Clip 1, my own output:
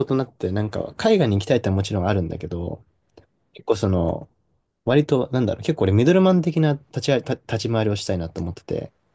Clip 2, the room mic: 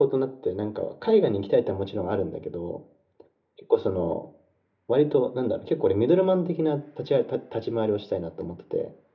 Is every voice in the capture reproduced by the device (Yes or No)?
Yes